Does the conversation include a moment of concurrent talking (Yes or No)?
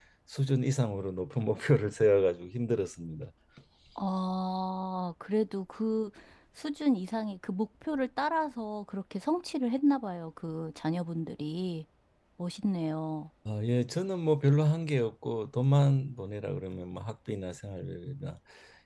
No